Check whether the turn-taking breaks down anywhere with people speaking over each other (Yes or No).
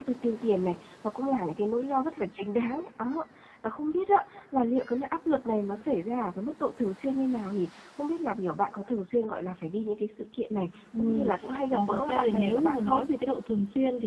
Yes